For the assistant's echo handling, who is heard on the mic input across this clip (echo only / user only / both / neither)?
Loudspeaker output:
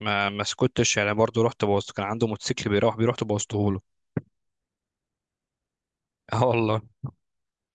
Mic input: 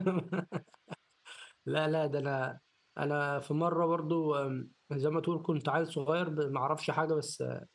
user only